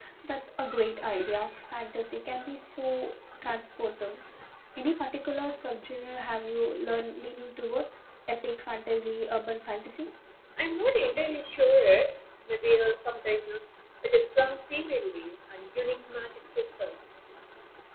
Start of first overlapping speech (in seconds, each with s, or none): none